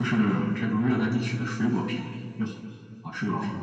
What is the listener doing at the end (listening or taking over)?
taking over